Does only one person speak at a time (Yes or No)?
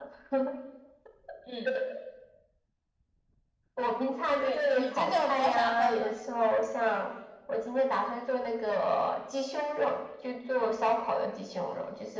No